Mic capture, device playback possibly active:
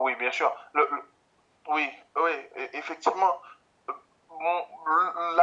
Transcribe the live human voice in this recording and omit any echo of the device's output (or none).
none